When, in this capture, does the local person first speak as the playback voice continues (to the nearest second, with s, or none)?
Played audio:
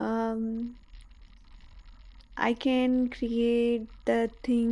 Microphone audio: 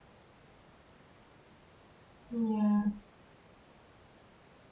2 s